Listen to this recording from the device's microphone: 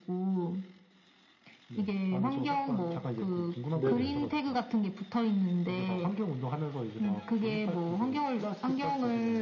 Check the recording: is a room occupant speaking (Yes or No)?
Yes